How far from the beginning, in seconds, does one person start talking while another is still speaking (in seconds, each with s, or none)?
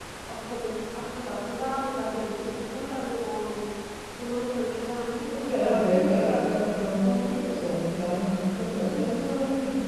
5.3 s